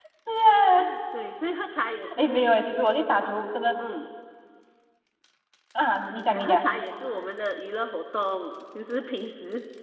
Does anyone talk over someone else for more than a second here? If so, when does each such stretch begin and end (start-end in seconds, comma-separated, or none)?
none